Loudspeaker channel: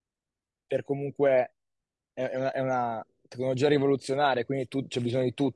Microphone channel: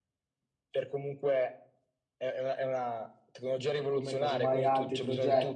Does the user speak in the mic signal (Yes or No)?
Yes